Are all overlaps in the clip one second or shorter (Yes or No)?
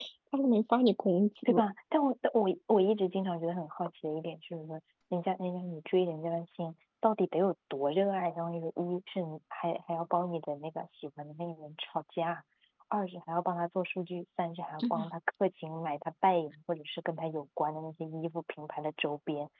Yes